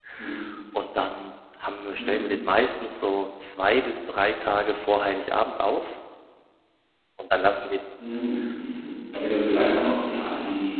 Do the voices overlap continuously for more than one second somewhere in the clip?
No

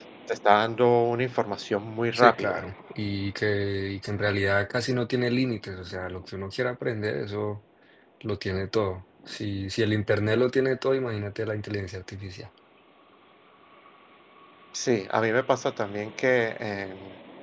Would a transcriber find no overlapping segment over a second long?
Yes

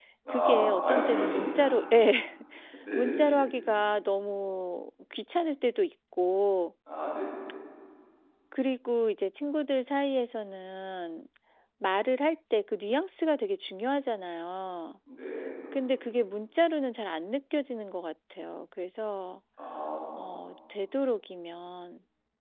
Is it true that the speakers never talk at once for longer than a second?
No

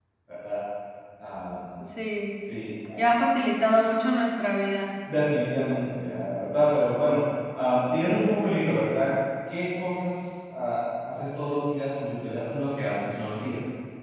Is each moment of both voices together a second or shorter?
Yes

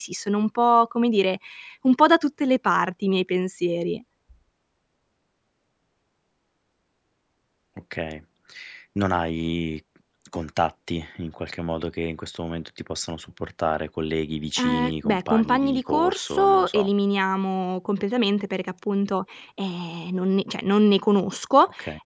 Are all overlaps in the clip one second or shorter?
No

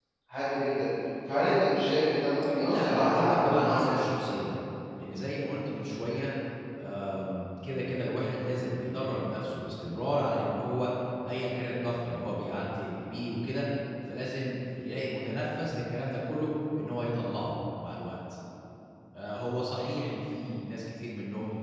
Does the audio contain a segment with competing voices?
Yes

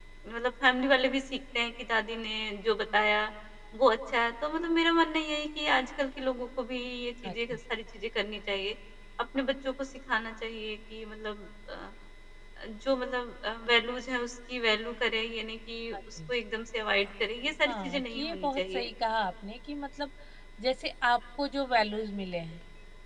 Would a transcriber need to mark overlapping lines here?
Yes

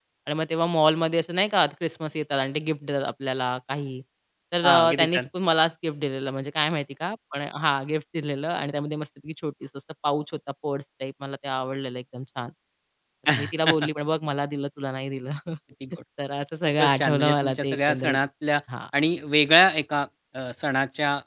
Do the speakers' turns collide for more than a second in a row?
Yes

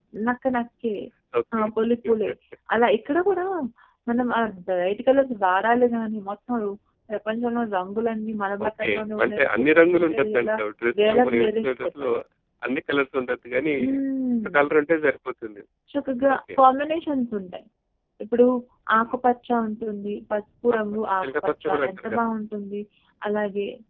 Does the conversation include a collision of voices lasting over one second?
Yes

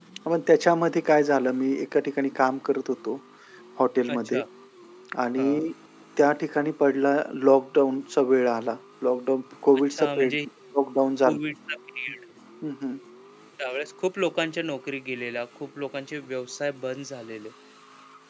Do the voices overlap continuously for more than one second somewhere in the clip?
No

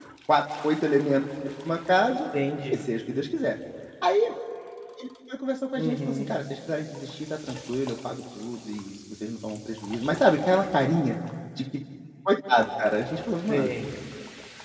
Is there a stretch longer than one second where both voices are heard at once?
No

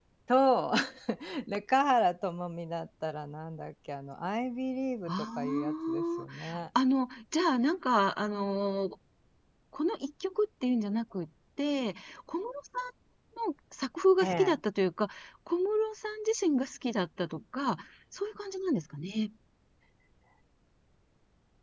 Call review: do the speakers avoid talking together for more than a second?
No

